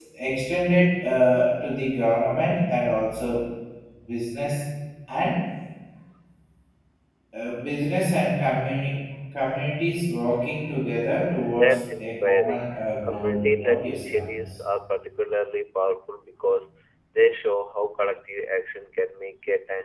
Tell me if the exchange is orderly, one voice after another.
No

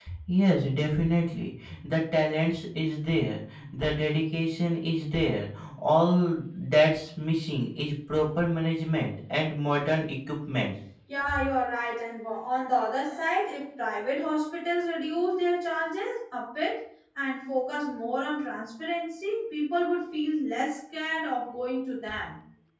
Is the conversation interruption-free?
Yes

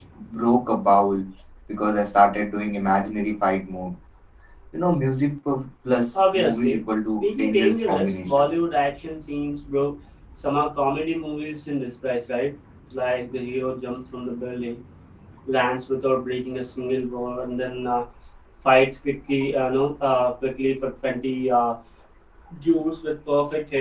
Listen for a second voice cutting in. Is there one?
Yes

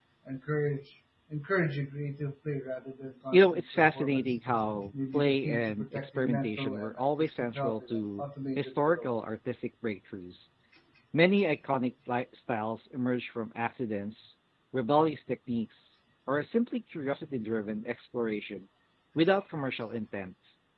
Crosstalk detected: Yes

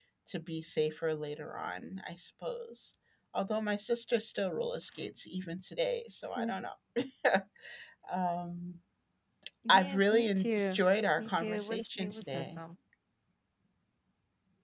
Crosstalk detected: Yes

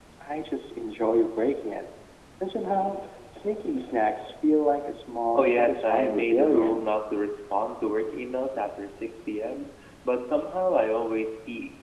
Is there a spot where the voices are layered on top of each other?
Yes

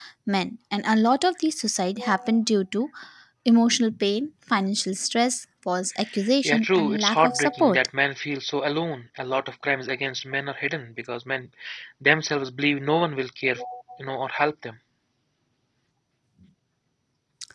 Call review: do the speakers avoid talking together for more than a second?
No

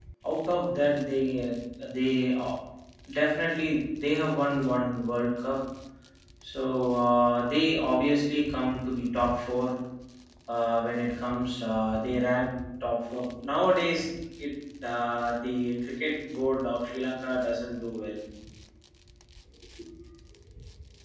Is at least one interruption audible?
No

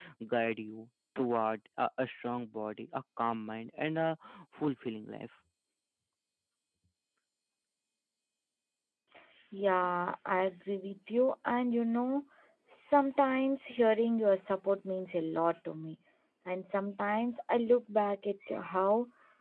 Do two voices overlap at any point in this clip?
No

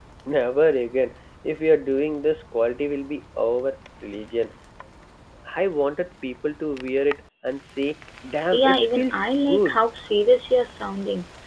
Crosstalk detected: Yes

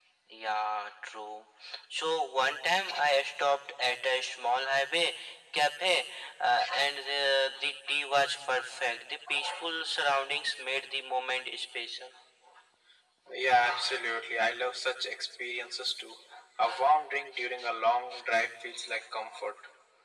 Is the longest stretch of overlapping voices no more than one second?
Yes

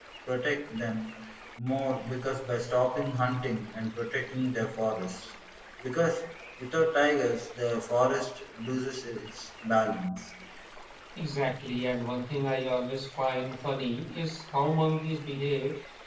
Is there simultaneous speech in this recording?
No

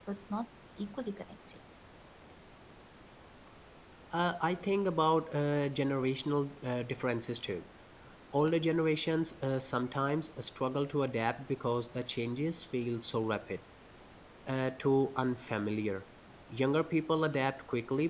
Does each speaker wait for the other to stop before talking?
Yes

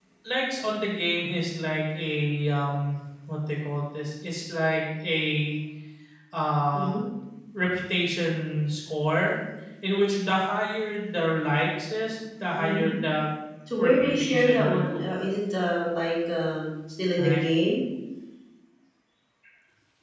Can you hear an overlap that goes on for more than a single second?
Yes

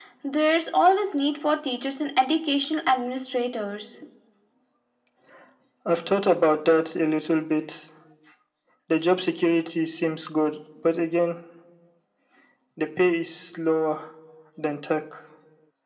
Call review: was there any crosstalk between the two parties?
No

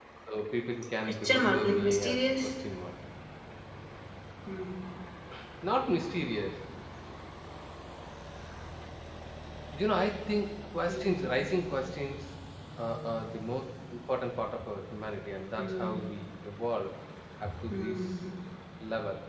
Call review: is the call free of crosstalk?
No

